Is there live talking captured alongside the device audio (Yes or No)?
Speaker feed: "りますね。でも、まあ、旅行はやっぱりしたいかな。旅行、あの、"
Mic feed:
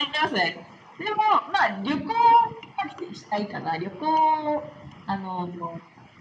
No